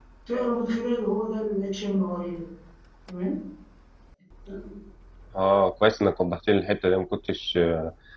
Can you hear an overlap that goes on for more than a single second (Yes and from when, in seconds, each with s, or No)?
No